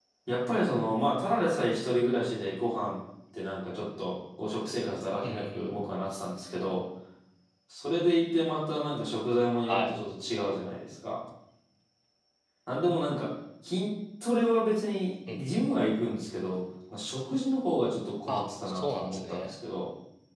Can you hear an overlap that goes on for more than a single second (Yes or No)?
Yes